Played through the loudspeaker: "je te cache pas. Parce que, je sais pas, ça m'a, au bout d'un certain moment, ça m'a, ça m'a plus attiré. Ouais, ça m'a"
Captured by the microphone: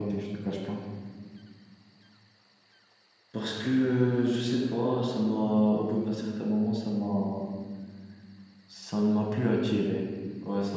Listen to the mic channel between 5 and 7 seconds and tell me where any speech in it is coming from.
echo only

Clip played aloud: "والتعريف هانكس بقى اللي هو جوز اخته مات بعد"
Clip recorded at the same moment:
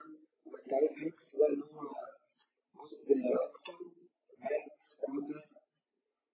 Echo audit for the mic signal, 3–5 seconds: echo only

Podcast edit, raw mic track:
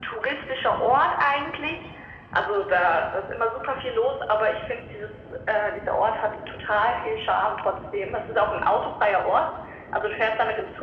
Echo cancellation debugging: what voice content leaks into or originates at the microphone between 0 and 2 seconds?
echo only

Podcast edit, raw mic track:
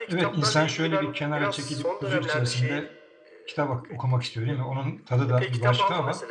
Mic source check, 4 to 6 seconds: both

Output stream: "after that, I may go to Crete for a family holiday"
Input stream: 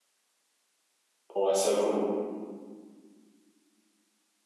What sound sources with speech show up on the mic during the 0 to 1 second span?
neither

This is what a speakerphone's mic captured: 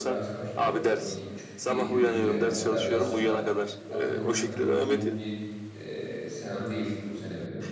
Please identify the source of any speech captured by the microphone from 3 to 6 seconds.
both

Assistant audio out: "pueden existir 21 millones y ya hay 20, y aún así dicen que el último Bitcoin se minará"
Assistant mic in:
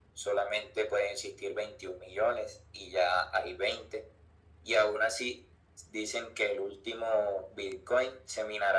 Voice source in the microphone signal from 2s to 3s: echo only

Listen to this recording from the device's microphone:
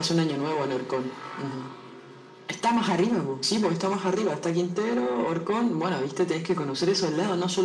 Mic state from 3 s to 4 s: echo only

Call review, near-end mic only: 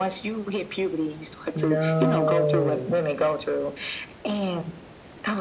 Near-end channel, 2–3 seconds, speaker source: both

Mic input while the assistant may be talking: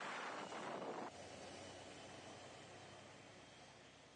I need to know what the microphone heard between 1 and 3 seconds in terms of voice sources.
neither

